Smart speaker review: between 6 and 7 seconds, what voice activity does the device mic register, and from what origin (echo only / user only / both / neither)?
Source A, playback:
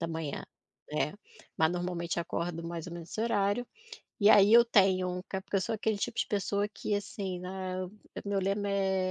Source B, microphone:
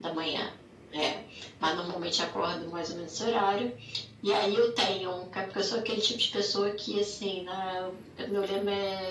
echo only